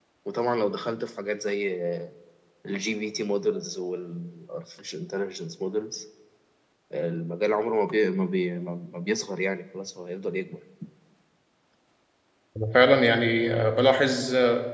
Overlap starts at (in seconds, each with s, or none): none